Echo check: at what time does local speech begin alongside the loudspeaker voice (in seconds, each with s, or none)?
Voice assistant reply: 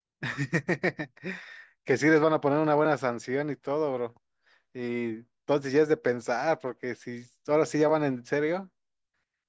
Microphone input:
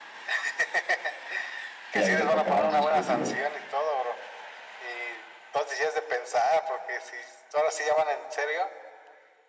1.9 s